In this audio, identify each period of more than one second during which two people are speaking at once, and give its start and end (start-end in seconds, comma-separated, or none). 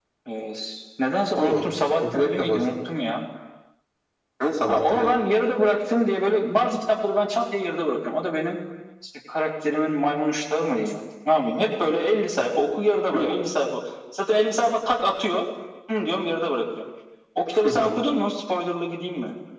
1.4-2.7